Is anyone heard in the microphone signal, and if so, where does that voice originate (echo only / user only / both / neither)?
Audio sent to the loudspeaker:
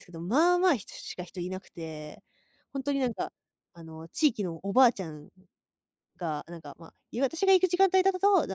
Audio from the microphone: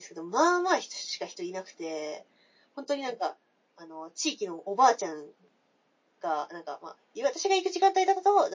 echo only